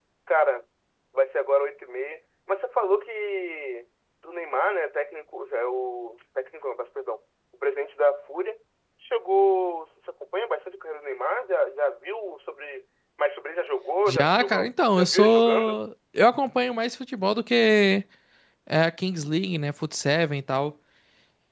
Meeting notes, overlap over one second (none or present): present